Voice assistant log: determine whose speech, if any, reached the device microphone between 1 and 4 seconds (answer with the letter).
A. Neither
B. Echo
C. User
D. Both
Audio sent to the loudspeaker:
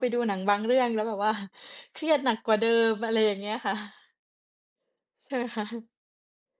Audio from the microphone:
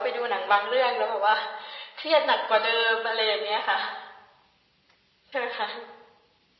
B